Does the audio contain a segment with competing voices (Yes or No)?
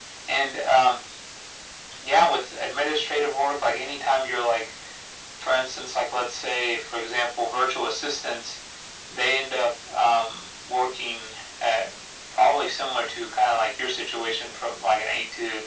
No